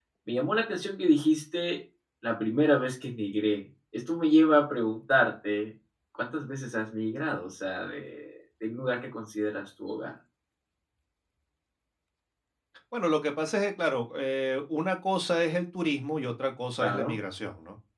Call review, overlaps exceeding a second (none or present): none